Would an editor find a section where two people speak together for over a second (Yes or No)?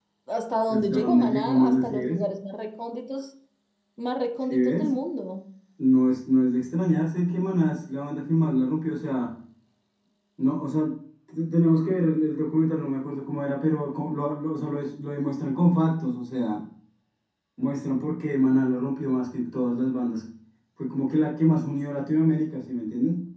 Yes